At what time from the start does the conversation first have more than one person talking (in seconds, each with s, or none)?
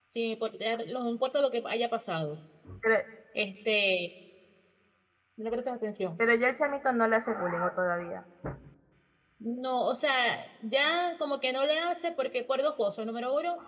none